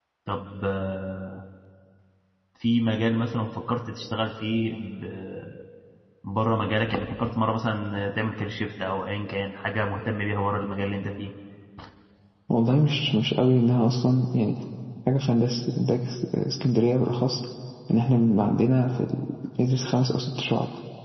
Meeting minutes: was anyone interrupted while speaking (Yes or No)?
No